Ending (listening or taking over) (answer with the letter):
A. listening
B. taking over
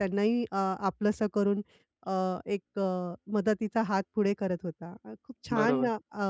A